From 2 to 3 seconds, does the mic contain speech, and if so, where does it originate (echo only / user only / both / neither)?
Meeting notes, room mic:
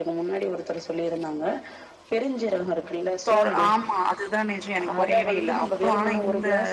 echo only